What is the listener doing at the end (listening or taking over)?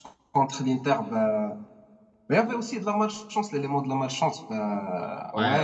listening